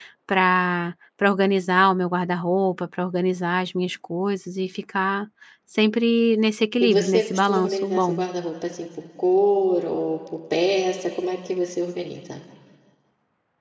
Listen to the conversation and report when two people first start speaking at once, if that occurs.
6.8 s

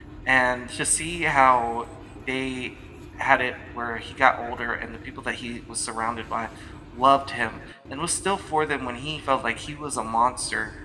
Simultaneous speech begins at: none

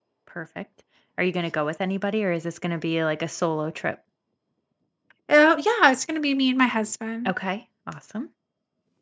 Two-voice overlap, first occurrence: none

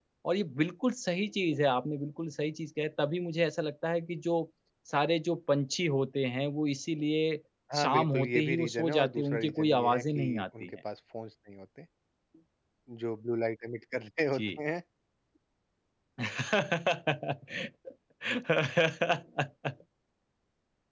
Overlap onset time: 7.8 s

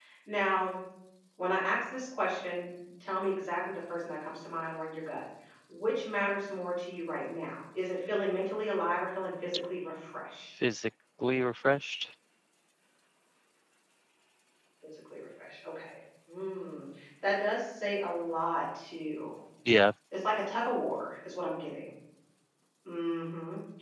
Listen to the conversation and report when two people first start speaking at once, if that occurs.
none

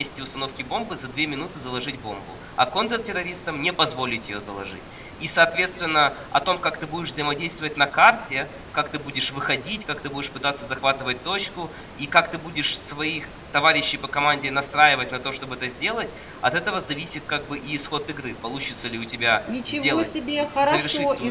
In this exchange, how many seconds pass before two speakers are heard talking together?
19.5 s

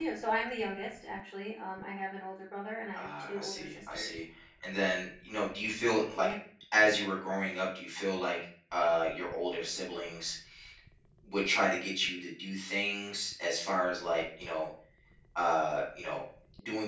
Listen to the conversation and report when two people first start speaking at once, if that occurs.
2.9 s

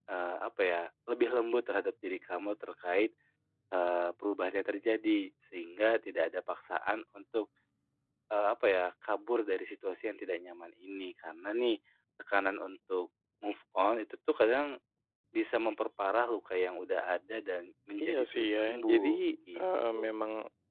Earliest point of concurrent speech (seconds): 18.0 s

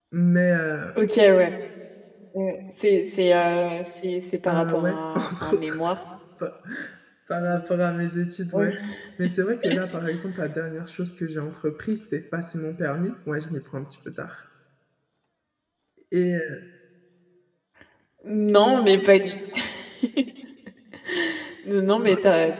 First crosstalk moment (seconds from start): 4.5 s

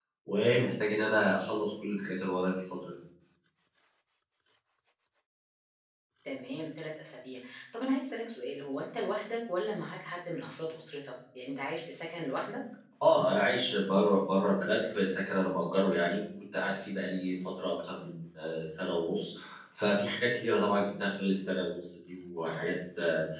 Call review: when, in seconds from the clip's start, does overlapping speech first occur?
none

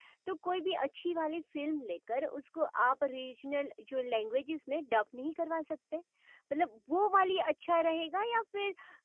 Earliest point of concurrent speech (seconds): none

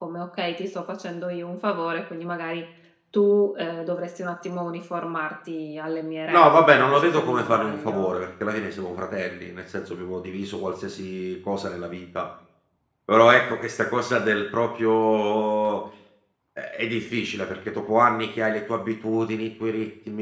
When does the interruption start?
6.3 s

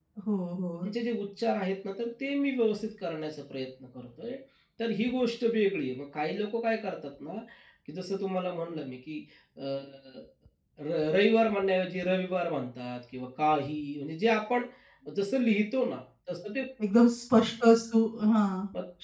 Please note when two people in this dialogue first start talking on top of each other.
none

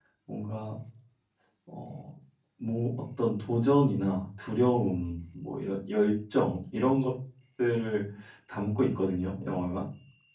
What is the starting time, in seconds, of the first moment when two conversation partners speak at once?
none

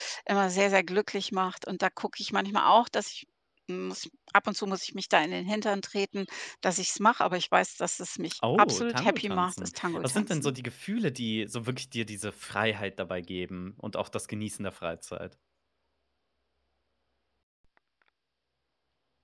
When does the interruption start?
8.4 s

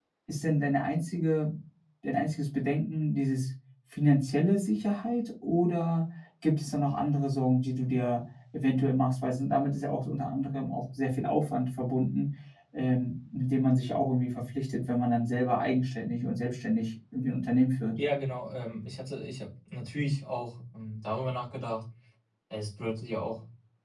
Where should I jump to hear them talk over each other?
none

